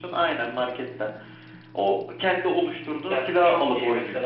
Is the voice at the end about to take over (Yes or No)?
Yes